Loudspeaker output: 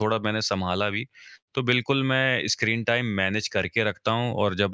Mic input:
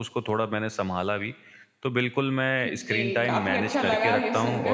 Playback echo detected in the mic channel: Yes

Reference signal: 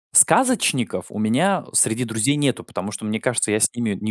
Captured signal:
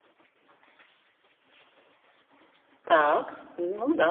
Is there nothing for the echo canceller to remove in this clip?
Yes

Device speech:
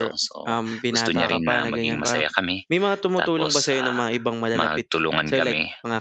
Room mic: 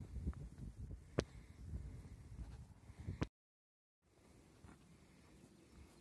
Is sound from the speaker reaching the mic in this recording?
No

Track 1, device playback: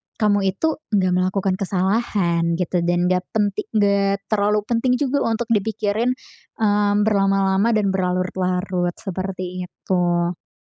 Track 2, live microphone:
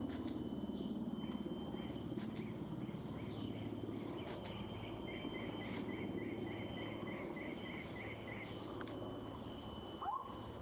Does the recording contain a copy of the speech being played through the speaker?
No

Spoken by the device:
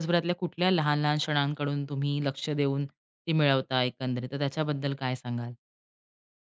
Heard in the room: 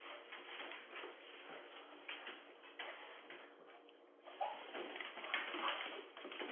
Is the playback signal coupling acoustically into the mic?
No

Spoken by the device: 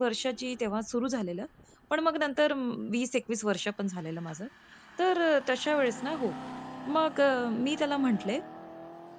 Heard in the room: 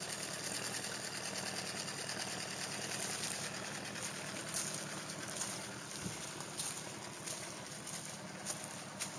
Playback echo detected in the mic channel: No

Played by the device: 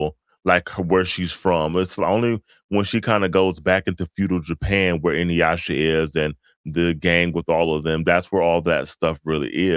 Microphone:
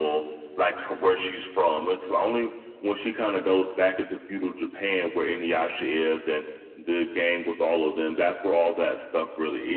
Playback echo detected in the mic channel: Yes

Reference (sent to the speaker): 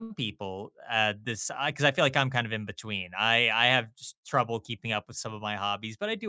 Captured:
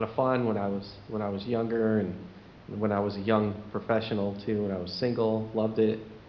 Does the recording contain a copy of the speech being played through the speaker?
No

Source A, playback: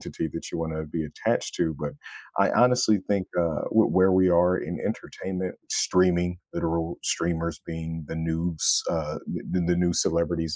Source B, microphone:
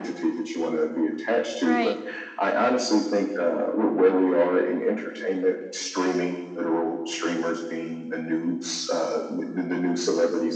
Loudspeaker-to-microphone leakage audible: Yes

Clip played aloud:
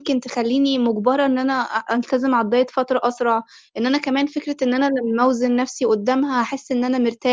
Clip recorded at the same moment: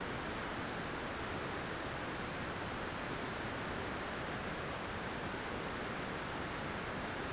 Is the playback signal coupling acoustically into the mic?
No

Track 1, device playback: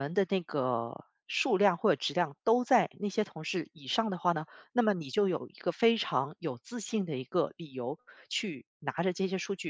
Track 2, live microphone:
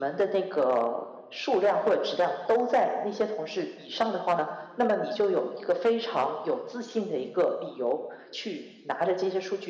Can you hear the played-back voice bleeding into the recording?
Yes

